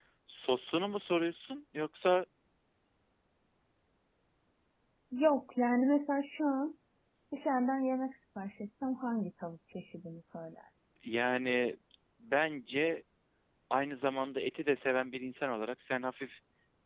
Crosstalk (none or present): none